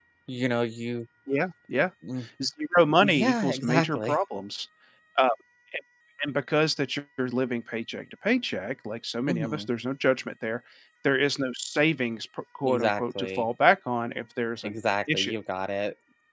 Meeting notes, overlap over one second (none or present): present